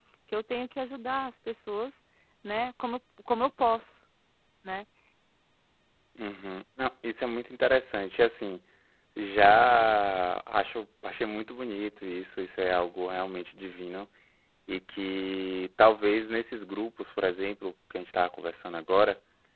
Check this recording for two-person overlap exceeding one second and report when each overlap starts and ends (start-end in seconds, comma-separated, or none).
none